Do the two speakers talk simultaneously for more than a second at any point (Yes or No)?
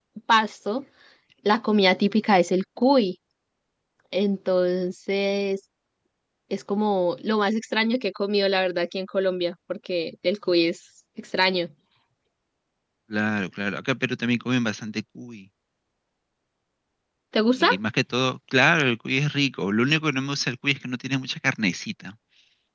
No